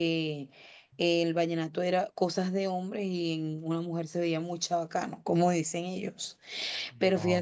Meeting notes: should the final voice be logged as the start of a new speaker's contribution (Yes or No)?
No